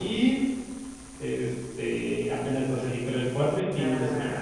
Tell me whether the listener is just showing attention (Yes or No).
No